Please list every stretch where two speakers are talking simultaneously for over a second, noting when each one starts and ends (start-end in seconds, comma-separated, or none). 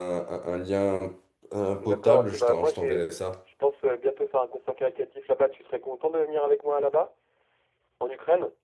1.8-3.0